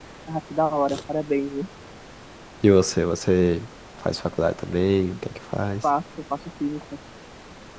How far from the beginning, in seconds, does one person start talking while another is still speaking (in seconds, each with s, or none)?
none